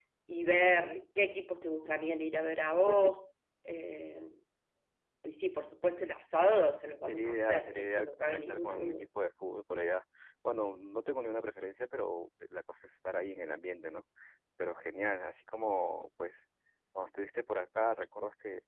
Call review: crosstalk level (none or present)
present